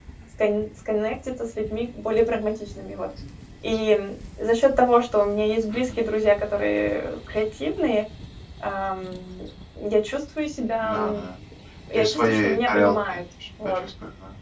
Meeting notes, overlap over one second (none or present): present